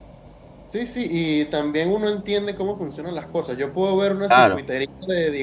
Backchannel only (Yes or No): Yes